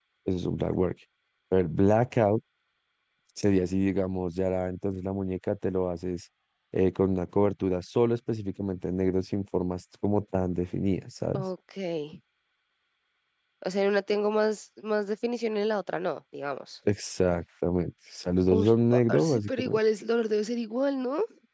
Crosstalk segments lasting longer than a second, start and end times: 18.5-19.8

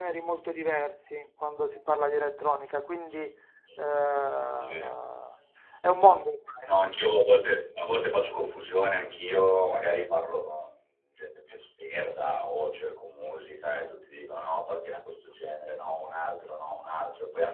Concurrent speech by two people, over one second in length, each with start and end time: none

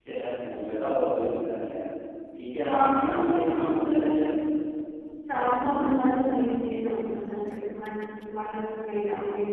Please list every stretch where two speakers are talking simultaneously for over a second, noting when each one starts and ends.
2.7-4.2

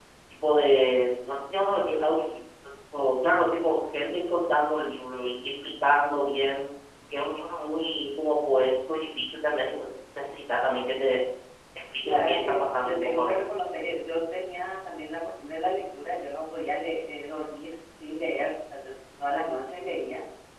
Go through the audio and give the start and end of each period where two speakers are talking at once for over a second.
12.0-13.5

